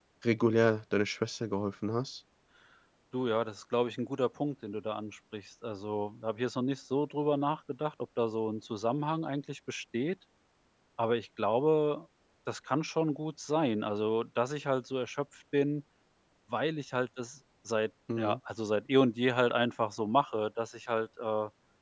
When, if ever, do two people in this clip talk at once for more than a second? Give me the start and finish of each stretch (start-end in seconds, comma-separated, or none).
none